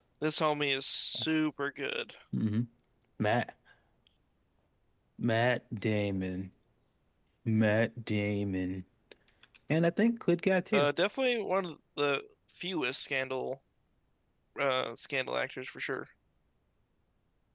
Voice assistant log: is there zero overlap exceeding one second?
Yes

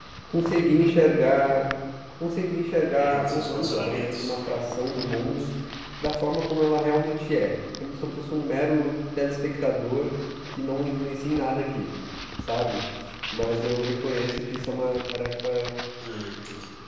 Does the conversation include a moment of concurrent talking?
Yes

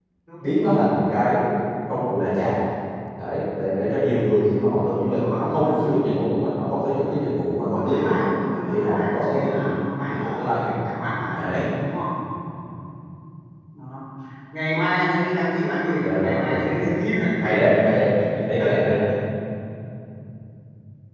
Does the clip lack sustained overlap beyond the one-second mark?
No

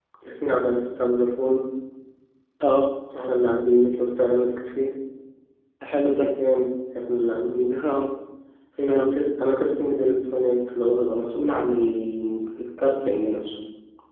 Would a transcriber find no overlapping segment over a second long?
Yes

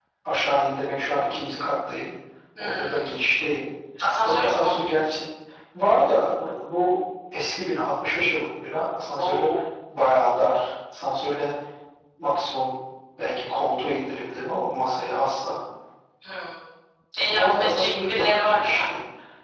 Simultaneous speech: Yes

